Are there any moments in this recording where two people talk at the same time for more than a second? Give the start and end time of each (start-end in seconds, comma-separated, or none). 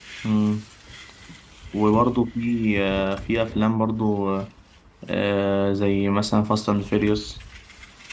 none